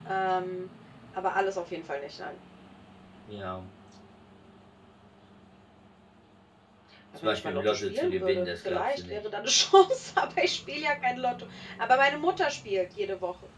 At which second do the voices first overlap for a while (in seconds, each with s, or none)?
7.2 s